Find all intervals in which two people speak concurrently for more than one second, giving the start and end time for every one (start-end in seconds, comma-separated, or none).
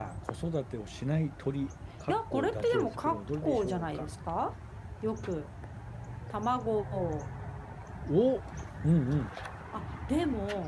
2.1-4.0